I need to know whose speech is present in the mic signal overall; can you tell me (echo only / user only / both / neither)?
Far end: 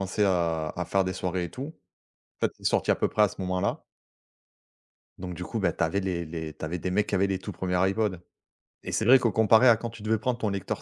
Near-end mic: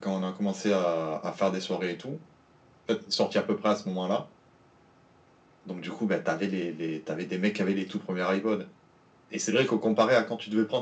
echo only